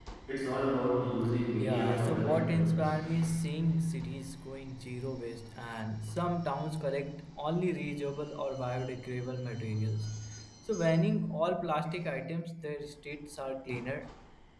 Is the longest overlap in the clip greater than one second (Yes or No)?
Yes